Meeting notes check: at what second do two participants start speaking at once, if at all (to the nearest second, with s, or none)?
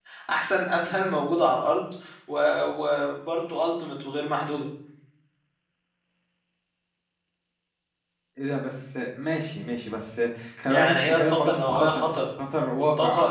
11 s